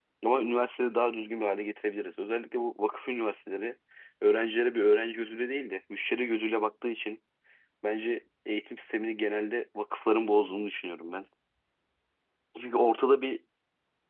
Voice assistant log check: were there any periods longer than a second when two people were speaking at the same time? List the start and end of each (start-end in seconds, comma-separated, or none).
none